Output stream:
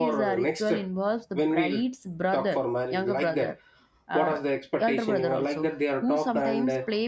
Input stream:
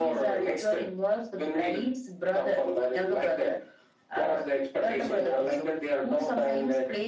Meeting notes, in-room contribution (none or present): none